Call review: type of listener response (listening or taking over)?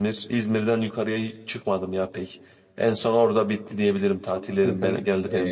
taking over